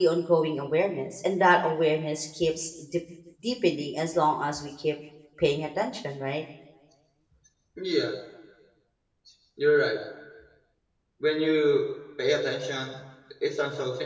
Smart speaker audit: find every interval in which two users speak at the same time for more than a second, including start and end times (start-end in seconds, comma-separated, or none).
none